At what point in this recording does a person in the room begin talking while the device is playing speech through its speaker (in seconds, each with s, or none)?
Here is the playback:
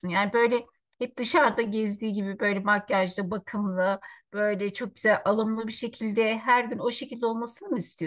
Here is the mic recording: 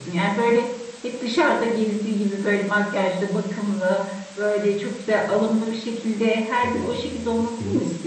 6.6 s